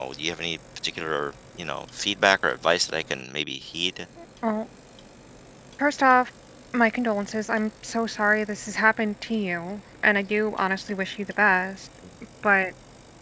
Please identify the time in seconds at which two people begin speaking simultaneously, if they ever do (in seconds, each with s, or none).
none